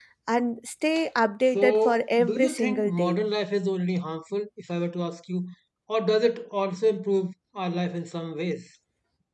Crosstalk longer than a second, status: present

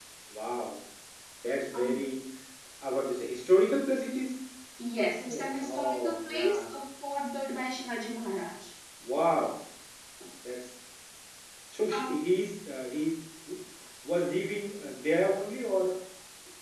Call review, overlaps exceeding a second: present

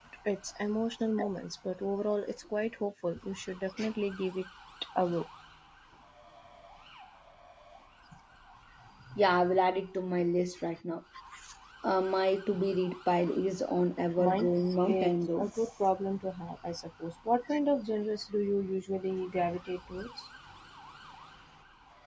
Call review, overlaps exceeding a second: present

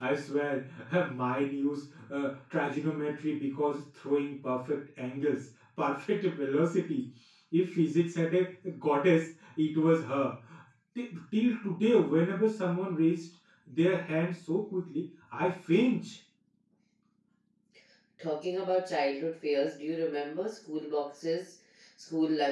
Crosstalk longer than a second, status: none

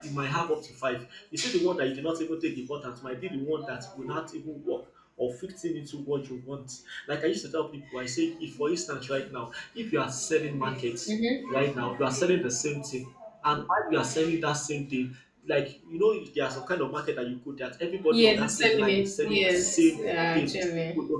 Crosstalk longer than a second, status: present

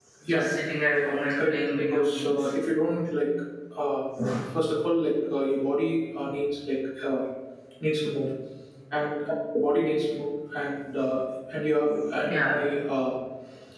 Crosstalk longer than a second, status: present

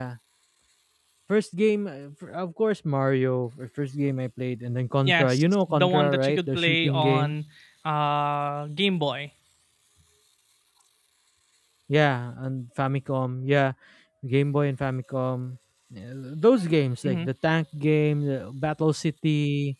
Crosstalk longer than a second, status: present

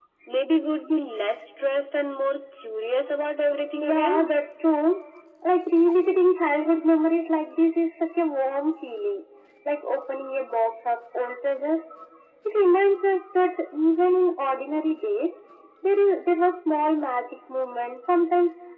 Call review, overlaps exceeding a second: none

